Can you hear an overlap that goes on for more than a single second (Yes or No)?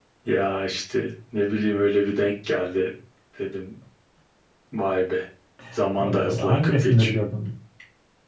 Yes